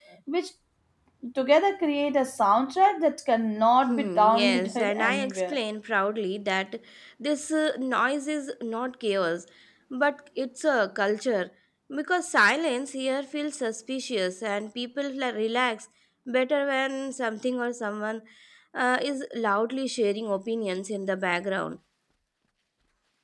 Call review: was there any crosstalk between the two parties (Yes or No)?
Yes